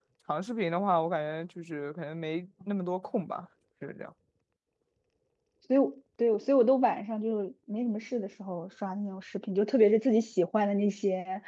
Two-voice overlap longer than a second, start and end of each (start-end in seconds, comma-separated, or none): none